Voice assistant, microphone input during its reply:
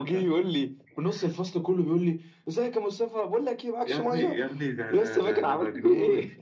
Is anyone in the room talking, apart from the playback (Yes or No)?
No